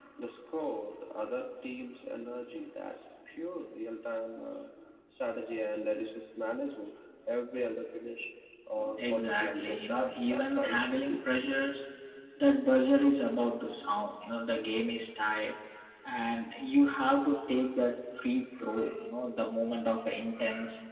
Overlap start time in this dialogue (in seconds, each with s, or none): 9.0 s